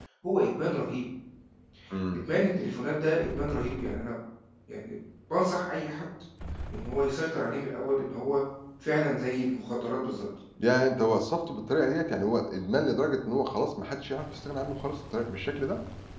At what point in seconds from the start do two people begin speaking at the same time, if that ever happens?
none

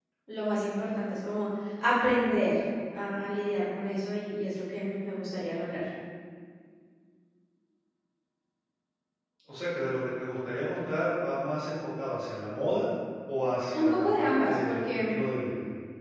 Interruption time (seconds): 13.7 s

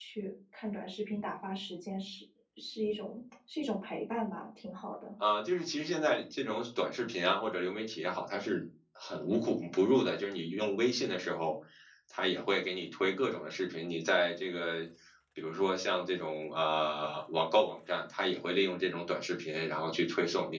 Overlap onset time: none

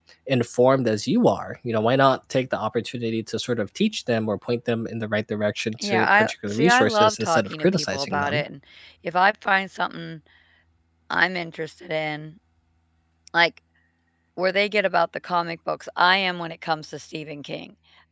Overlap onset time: 5.8 s

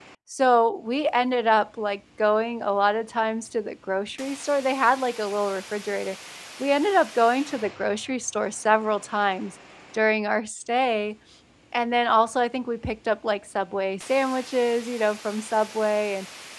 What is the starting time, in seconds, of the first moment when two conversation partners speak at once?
none

